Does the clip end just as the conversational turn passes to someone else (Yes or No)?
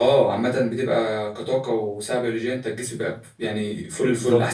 Yes